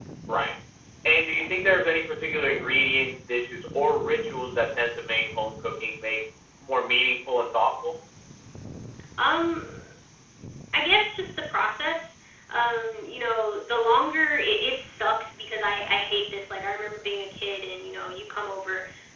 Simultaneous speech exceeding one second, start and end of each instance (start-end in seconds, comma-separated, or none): none